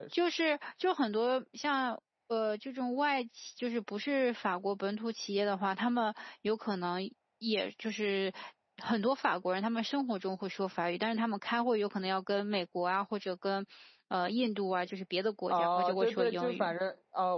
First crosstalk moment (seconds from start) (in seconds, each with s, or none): 15.5 s